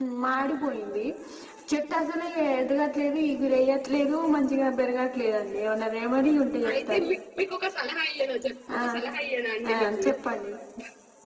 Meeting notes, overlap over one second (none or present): none